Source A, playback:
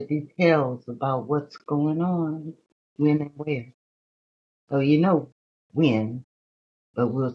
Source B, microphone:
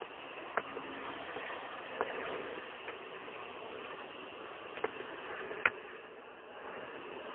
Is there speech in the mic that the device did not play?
No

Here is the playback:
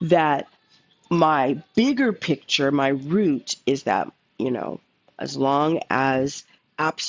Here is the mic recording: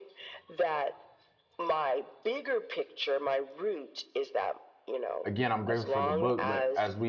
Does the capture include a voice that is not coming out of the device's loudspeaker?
Yes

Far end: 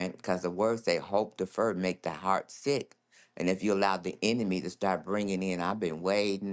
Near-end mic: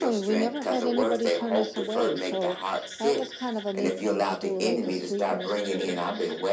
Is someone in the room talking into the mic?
Yes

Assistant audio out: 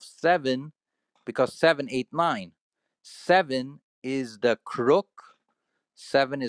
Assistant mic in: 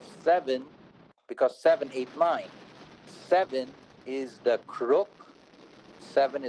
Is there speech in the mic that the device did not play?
No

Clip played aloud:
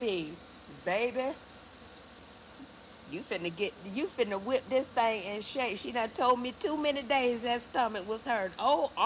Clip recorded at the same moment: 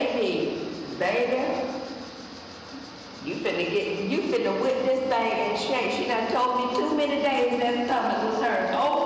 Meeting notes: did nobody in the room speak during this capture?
Yes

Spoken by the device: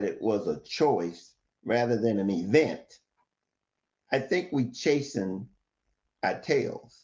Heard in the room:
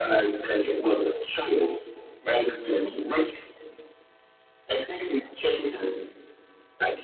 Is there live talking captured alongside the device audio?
No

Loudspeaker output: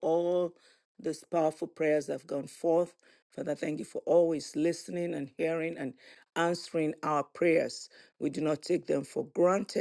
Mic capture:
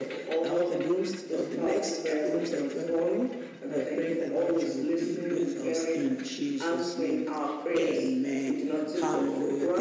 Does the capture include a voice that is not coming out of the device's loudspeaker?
Yes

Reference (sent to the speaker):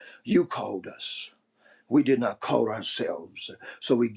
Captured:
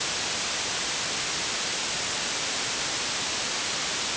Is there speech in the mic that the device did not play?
No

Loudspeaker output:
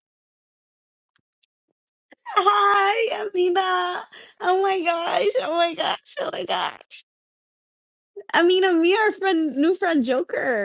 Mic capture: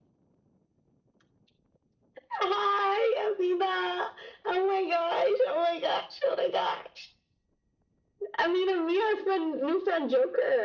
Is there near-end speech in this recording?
No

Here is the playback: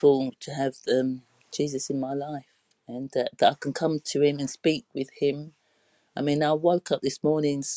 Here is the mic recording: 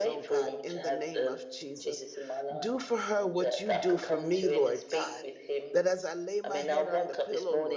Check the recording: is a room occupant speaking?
Yes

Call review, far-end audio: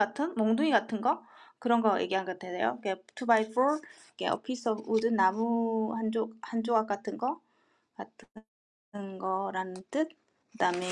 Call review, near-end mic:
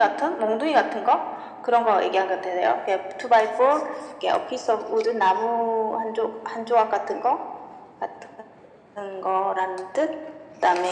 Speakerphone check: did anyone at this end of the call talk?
No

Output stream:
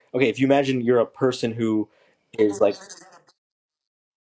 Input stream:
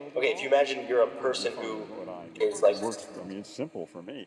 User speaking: Yes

